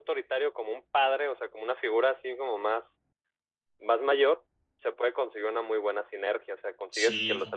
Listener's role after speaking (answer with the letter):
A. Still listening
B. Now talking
A